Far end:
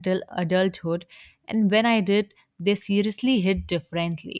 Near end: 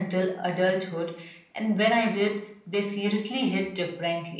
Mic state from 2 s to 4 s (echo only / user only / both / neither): echo only